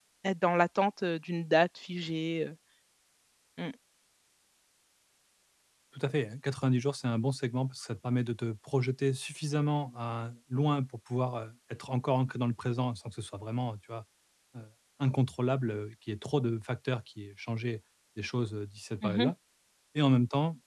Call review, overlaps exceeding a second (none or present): none